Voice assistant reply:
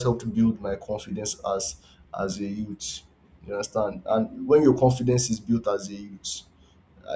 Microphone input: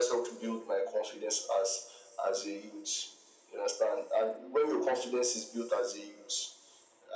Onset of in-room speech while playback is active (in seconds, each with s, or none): none